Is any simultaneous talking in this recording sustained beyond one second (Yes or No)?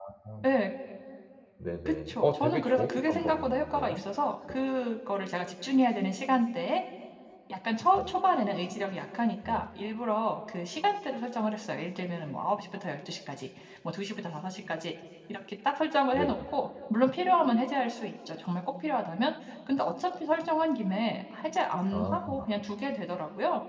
Yes